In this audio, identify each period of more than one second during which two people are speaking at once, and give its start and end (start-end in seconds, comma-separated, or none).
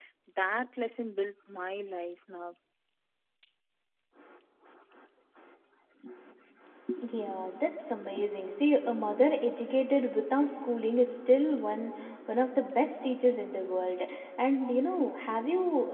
none